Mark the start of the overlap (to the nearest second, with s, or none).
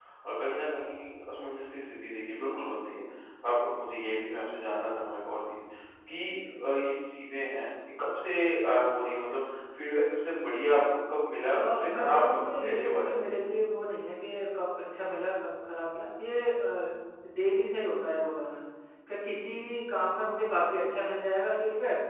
12 s